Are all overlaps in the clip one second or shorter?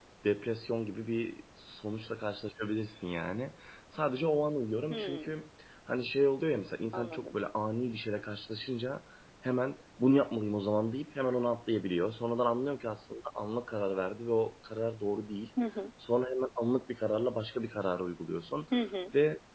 Yes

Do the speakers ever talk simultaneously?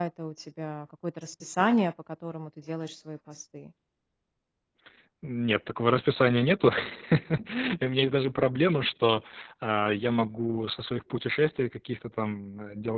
No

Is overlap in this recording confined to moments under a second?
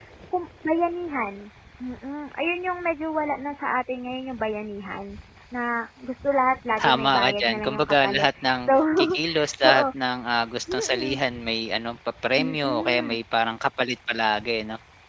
No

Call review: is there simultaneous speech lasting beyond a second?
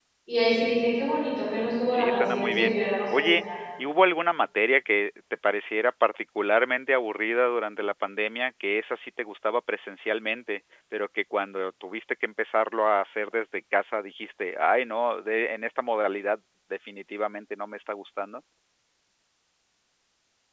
Yes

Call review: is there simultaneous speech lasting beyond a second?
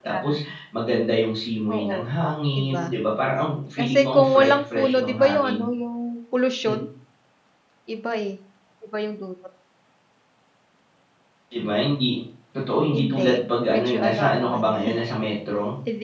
Yes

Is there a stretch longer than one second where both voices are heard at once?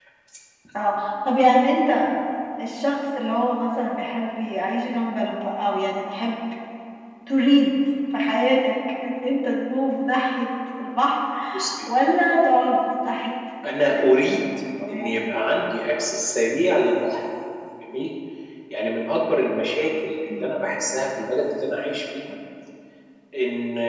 No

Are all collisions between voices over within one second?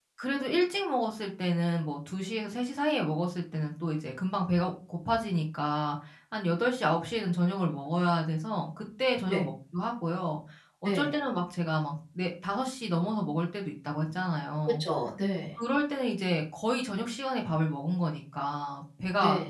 Yes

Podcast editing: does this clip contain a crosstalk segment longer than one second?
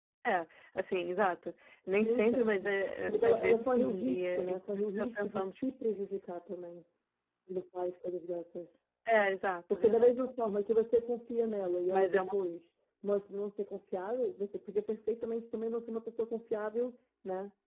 Yes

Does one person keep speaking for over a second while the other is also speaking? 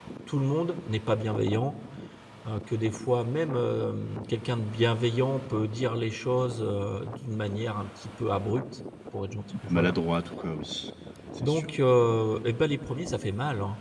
No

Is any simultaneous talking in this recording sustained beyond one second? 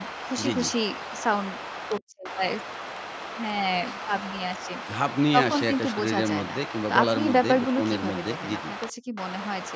Yes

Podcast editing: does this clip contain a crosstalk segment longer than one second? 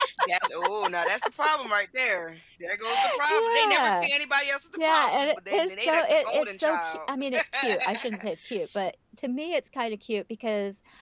Yes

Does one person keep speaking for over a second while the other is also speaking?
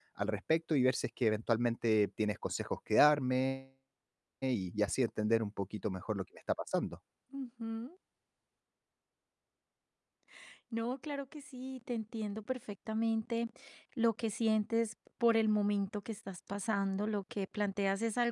No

